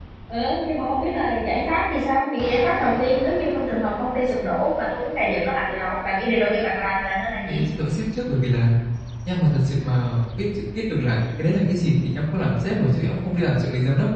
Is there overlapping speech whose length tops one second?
No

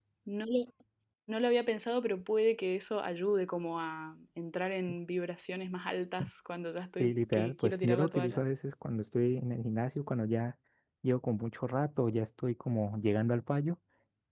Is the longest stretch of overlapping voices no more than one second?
No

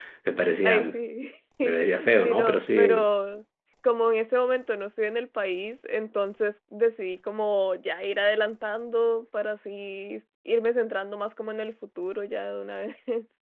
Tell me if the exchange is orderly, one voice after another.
No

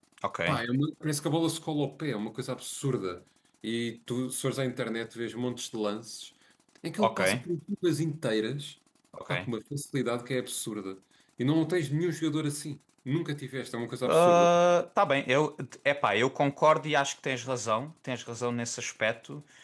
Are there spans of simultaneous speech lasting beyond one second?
No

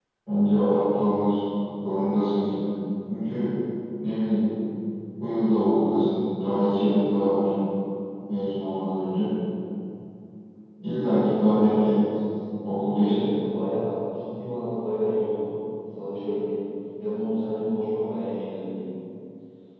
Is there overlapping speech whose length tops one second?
No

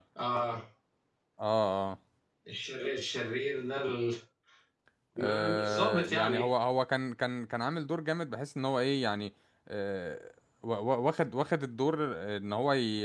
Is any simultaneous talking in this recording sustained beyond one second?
Yes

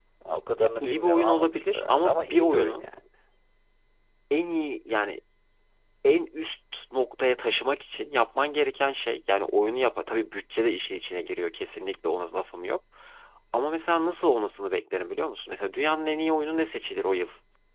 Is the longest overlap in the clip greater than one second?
Yes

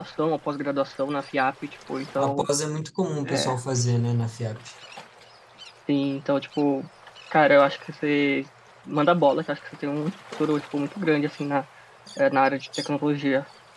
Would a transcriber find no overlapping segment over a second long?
Yes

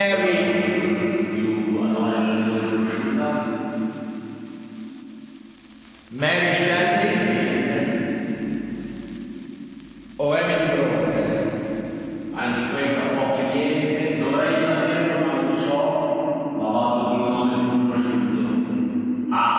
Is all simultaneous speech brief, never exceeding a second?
Yes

